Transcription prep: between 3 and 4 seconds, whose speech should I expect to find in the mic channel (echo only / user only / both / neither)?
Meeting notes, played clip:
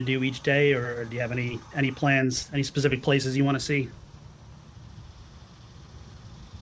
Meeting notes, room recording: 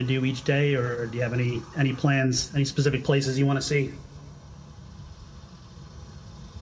echo only